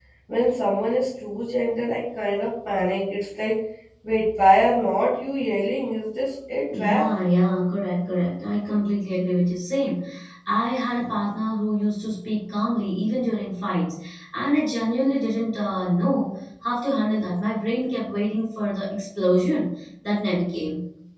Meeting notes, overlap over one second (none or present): none